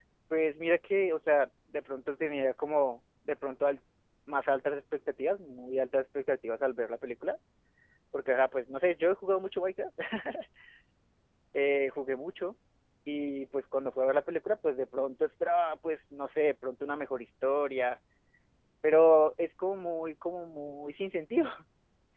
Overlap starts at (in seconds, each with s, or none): none